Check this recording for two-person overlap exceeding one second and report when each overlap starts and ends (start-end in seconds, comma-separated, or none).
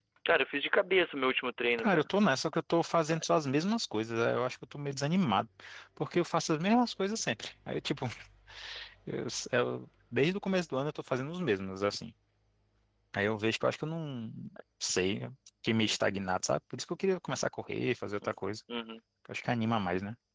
none